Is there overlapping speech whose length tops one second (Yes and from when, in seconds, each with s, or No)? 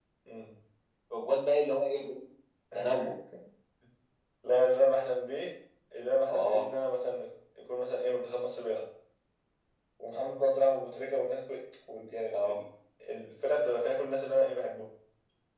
No